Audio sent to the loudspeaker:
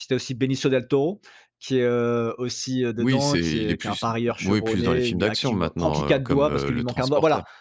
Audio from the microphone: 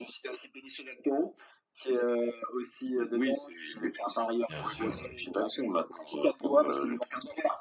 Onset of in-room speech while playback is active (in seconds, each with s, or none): 4.5 s